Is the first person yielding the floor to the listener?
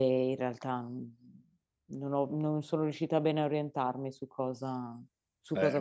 Yes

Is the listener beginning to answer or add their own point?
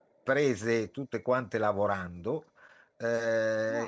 No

